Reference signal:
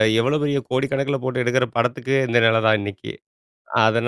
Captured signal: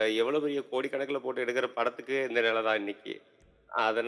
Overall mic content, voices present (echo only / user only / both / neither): echo only